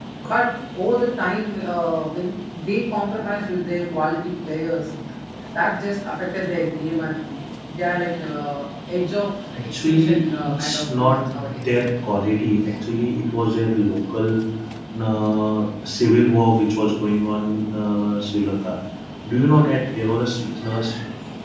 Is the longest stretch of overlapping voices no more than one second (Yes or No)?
No